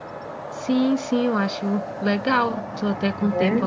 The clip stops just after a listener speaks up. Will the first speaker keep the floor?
Yes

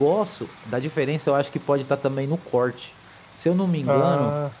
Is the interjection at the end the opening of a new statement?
No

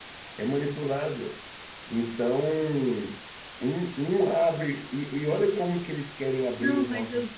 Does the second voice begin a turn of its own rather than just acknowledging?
Yes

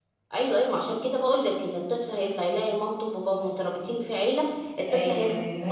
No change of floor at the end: No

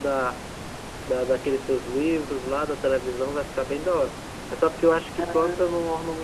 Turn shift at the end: No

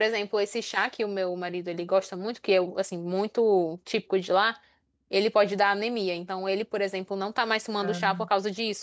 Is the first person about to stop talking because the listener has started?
No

